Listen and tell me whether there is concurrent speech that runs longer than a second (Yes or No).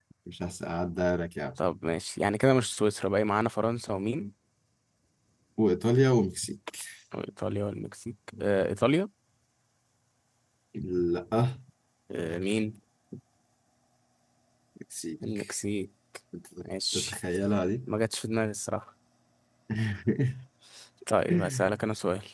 No